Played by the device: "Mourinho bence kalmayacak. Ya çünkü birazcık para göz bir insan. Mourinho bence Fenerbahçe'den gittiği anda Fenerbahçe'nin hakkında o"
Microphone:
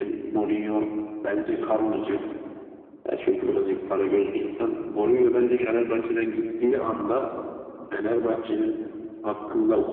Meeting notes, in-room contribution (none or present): none